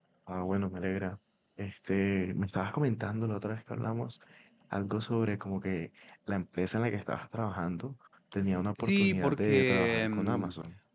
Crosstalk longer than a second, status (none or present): present